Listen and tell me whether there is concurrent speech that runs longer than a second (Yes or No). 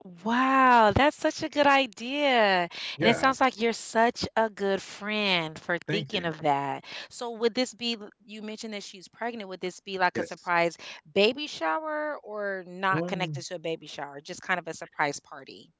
No